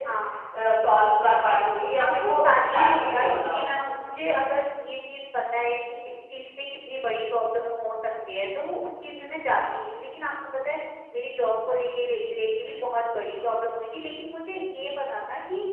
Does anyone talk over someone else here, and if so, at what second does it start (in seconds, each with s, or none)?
2.0 s